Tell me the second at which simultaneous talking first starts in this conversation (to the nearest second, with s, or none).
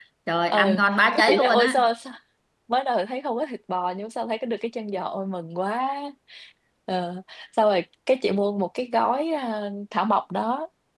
1 s